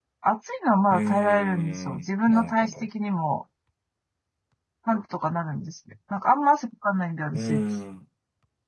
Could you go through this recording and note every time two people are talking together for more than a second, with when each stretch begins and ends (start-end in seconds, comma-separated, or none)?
0.9-2.8